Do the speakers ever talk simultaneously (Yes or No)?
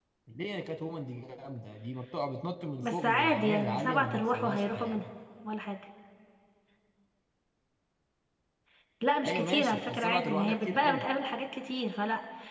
Yes